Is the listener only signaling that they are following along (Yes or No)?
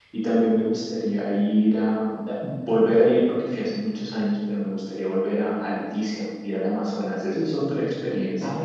No